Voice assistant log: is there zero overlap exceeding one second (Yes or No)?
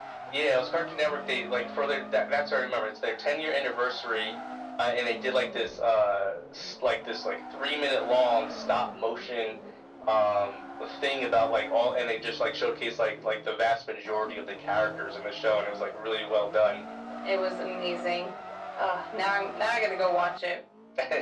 Yes